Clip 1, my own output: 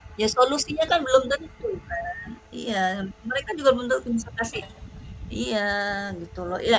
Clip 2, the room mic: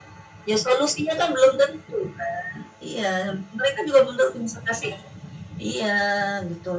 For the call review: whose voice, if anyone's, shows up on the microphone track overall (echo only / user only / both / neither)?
echo only